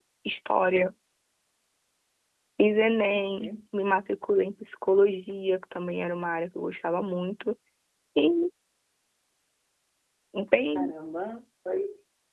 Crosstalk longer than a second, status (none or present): none